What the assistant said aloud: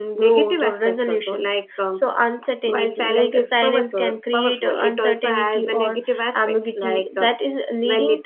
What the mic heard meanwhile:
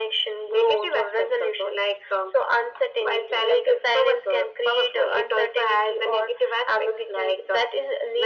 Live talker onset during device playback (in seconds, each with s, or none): none